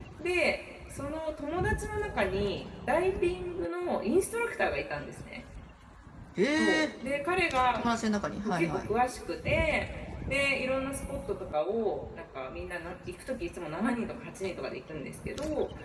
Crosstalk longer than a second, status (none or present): none